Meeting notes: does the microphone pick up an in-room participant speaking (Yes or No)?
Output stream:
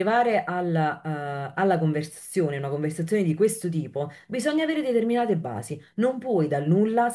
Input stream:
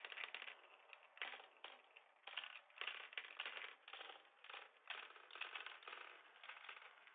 No